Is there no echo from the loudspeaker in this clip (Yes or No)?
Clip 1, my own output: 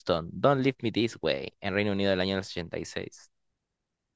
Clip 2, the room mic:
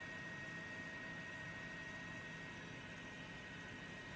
Yes